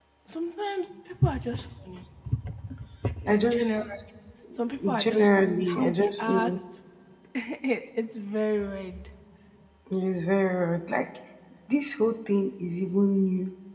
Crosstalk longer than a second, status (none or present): present